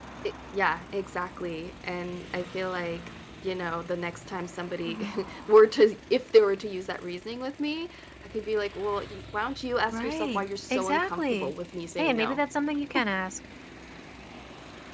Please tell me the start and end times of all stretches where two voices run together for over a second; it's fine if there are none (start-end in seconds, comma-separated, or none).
9.9-11.5